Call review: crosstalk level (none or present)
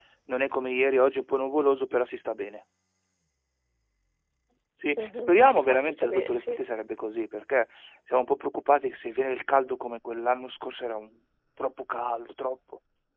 present